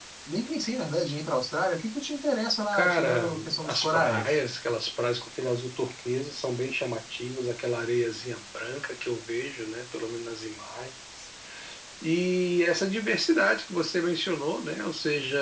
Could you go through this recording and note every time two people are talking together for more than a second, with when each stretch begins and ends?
2.7-4.4

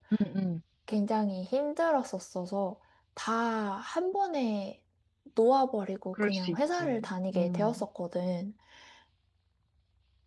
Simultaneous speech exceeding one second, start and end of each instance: 6.1-7.8

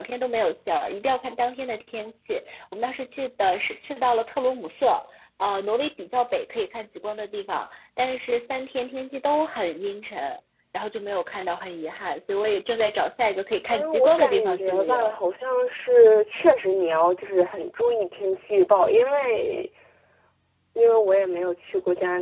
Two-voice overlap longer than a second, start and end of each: 13.7-15.2

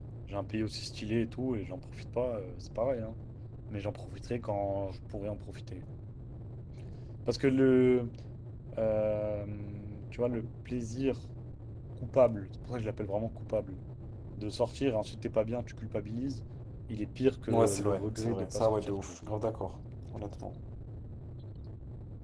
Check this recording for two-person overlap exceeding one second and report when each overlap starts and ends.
17.5-19.2

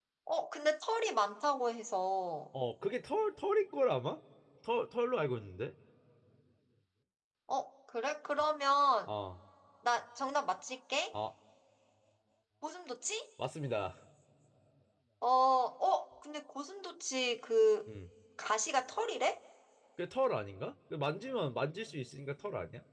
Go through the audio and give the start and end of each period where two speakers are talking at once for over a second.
none

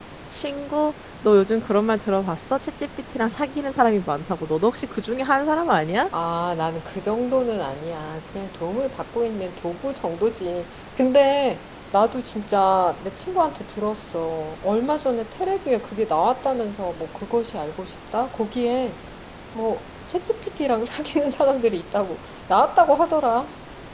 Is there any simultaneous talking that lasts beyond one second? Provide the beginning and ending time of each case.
none

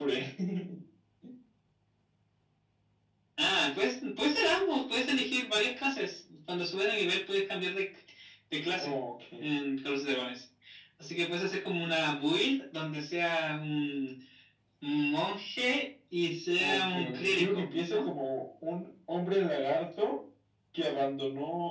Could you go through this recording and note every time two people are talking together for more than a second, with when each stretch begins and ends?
16.6-18.1

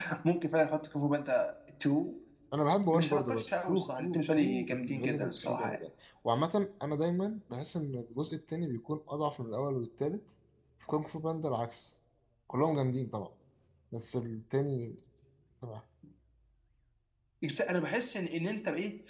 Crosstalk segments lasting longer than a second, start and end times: 2.9-5.8

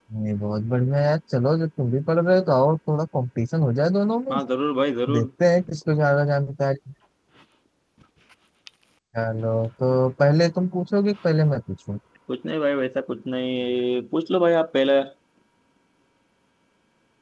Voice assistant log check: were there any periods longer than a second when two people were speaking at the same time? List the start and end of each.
none

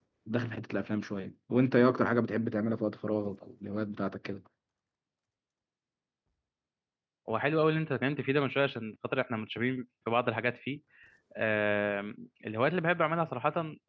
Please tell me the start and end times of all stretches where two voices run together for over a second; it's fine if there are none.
none

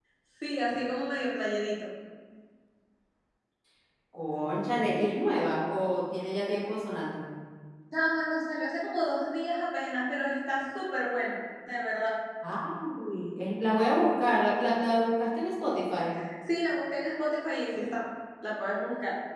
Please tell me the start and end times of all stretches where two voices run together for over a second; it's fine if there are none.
none

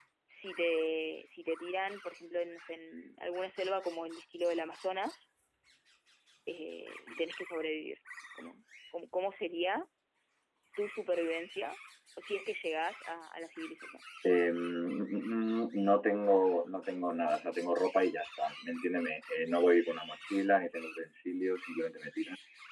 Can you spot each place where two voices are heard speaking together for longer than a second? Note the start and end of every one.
none

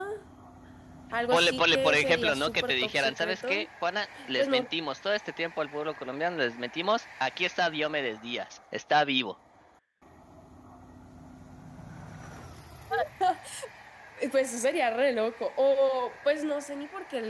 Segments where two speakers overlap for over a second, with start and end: 1.3-3.7

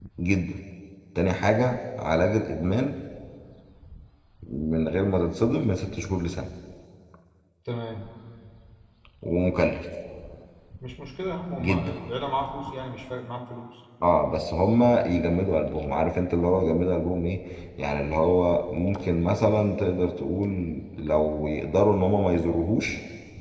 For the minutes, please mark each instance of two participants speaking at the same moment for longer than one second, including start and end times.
none

